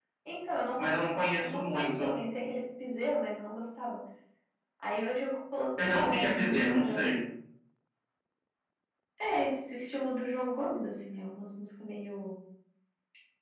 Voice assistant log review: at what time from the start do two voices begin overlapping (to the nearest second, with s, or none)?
1 s